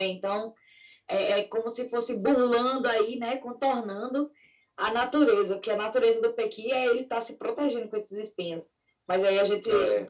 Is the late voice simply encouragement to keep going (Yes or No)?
Yes